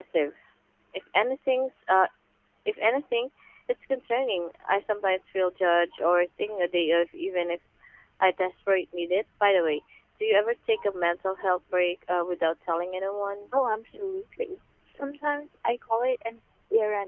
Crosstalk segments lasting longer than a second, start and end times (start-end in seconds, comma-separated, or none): none